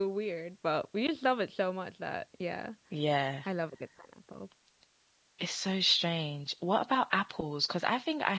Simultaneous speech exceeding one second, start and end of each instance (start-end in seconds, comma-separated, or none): none